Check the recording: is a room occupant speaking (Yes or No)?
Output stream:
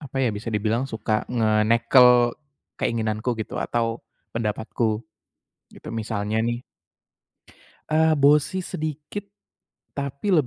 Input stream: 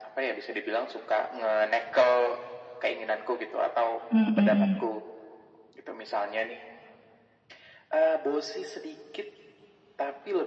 Yes